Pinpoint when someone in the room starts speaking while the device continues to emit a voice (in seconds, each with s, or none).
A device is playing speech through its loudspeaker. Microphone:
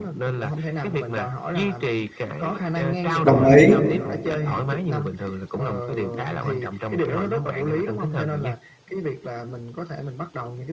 3.2 s